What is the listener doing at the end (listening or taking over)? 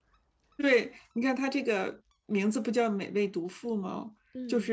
listening